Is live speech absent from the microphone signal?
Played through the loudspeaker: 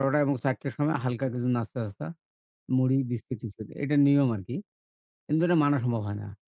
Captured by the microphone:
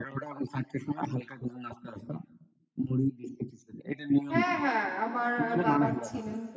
No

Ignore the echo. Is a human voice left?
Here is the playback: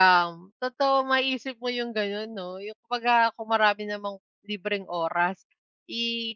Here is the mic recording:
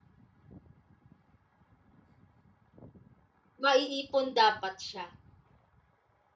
Yes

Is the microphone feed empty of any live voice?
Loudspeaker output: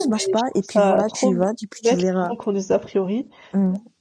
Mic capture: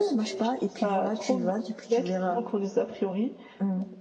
Yes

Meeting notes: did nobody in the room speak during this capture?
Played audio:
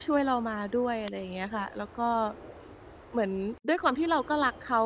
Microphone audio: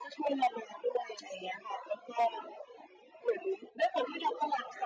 Yes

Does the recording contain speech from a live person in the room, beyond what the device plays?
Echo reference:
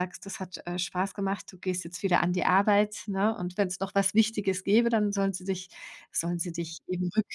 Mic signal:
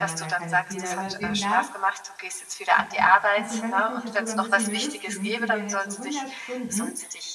Yes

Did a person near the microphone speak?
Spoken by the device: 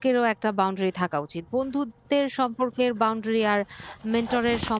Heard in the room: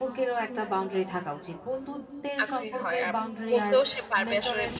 Yes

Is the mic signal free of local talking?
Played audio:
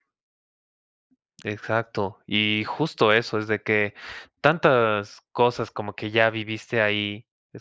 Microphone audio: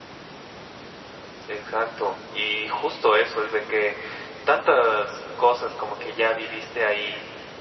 Yes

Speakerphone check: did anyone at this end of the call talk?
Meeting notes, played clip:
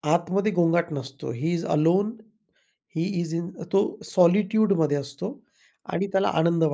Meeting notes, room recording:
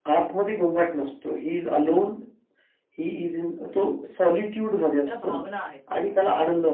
Yes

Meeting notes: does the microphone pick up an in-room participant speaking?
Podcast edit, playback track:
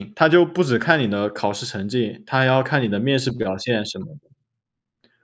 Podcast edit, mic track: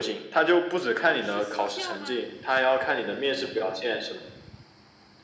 Yes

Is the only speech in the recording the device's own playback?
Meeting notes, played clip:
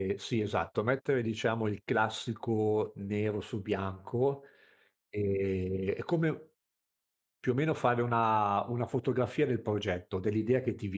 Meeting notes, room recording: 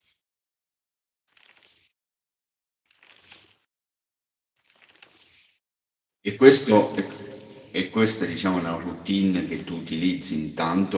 No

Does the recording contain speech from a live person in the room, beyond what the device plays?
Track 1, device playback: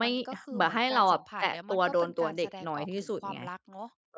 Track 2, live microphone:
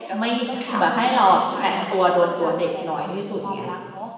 Yes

